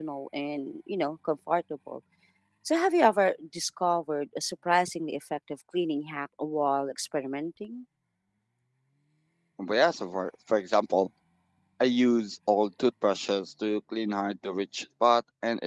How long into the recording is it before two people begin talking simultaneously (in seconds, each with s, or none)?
none